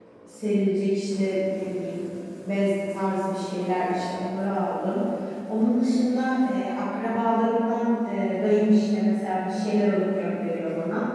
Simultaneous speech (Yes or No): No